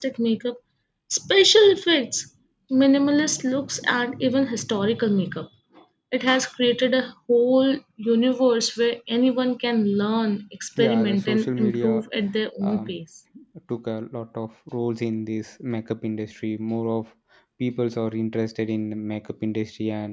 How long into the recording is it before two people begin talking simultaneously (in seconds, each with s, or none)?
10.8 s